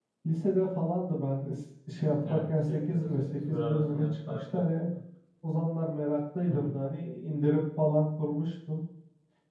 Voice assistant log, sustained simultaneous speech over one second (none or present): present